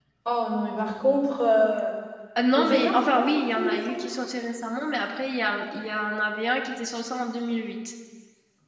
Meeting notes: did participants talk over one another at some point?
Yes, from 2.5 s

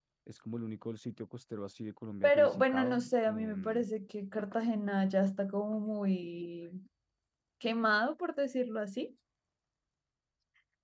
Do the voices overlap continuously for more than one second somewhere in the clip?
Yes, from 2.2 s

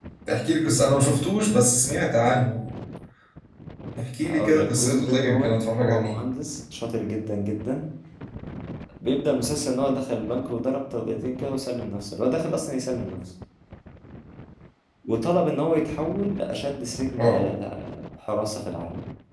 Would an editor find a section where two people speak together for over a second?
Yes, from 4.3 s

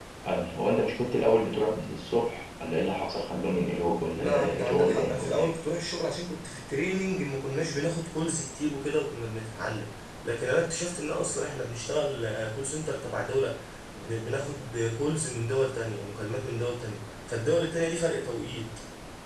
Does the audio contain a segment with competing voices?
Yes, from 4.2 s

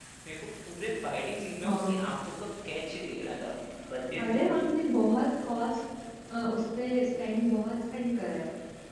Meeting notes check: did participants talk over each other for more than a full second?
No

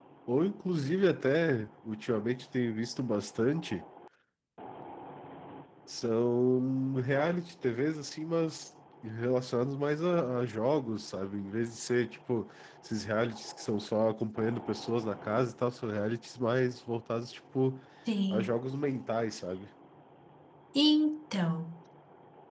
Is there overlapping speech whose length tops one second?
No

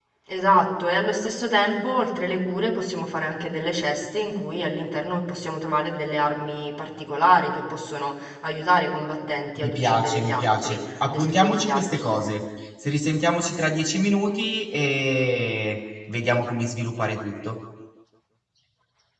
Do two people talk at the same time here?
Yes, from 9.6 s

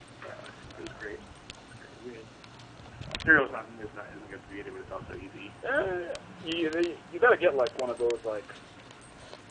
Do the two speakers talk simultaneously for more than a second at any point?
No

